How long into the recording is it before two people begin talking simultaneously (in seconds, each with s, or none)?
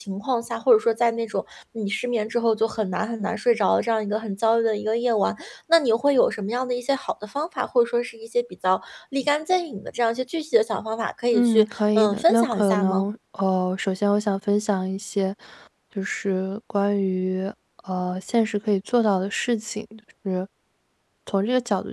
11.3 s